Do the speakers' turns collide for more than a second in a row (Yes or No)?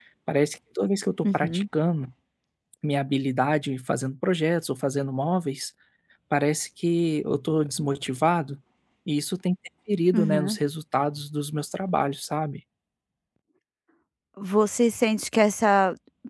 No